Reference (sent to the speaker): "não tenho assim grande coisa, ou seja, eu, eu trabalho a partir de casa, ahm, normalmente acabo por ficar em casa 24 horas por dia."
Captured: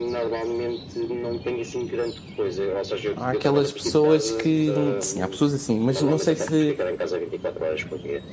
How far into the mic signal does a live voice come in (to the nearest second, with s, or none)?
3 s